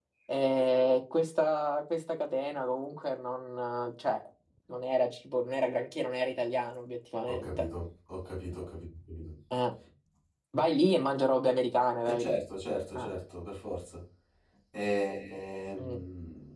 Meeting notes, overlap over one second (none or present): none